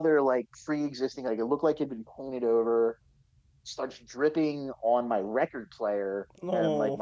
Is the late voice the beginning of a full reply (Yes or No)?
No